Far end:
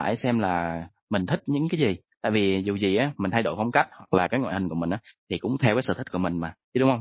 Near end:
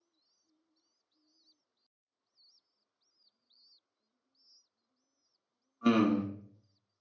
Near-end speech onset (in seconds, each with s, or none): 5.8 s